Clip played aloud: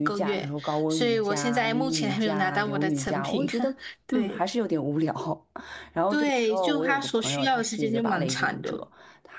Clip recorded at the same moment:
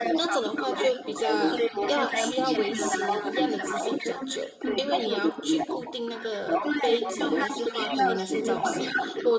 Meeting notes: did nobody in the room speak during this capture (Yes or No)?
No